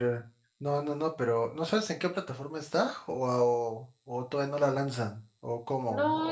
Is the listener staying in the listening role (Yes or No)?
No